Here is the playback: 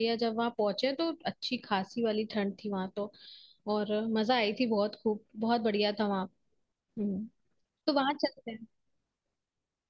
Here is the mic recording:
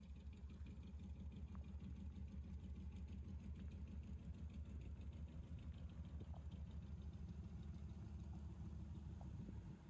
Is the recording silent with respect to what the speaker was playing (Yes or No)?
Yes